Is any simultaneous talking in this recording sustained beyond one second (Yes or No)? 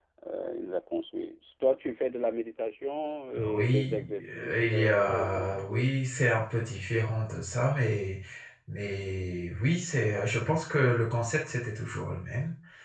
Yes